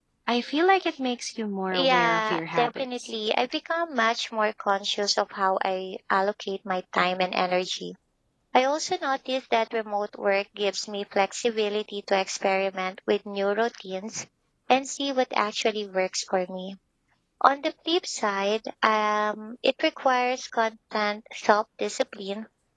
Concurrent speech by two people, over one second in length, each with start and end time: 1.7-3.1

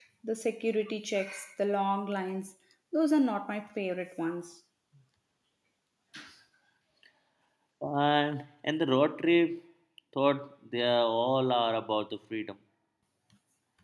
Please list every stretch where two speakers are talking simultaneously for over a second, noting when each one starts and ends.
none

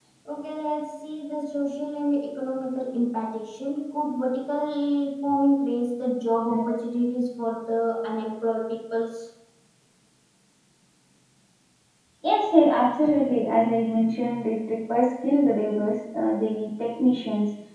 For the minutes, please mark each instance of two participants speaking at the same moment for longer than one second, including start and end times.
none

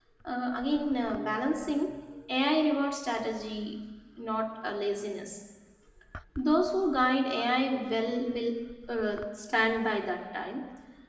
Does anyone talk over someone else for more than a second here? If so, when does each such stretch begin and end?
none

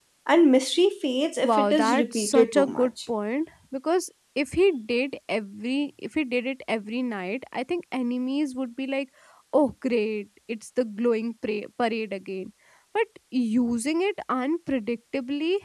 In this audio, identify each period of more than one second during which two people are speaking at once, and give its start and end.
1.4-2.9

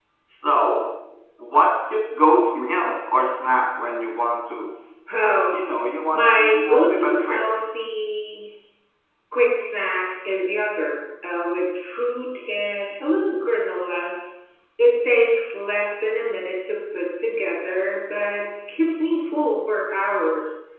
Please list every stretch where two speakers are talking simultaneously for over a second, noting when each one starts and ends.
6.1-7.4

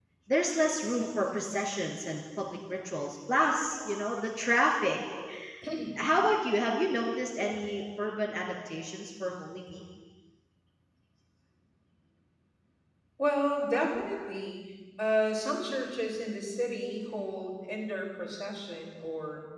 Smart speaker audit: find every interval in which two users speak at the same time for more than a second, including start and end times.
none

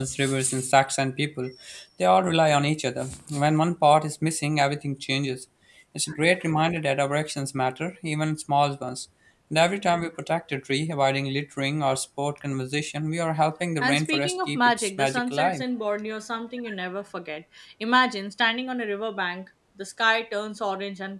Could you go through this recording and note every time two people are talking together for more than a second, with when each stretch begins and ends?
13.8-15.6

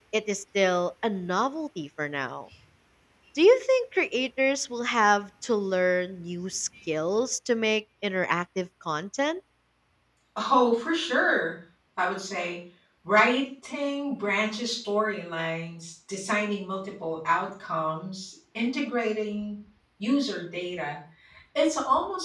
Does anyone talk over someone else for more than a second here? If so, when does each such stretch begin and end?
none

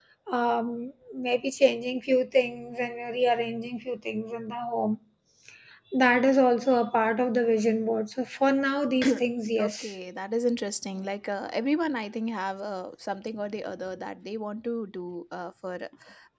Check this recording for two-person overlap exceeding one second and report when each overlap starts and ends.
none

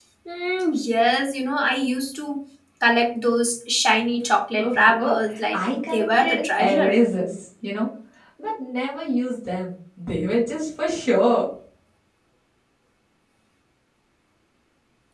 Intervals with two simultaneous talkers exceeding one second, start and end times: 5.5-7.0

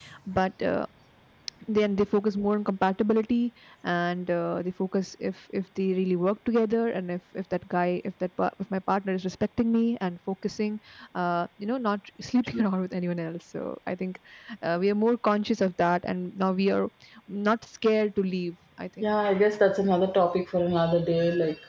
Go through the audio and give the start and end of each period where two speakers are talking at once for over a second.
none

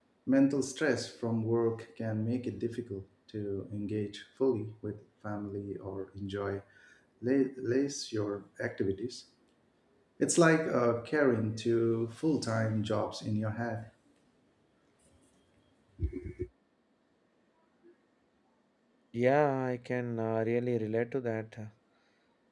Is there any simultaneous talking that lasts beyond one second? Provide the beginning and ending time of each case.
none

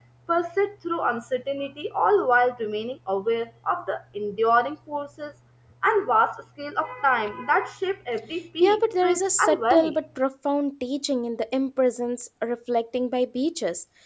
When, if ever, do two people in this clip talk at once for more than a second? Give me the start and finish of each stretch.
8.6-10.0

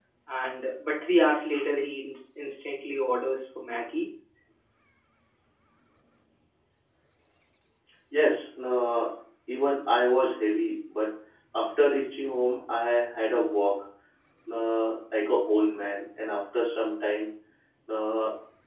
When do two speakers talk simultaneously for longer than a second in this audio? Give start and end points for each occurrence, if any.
none

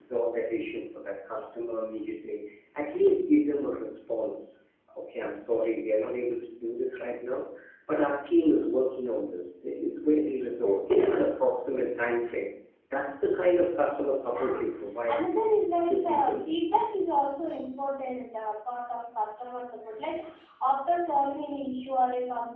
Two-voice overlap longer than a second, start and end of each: none

